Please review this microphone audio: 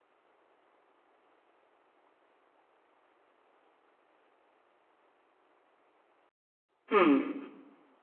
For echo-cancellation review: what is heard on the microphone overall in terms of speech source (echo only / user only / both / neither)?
user only